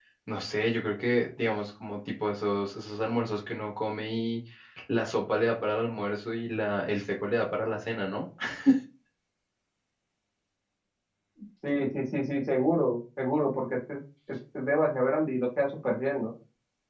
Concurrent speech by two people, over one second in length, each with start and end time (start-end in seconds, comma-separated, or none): none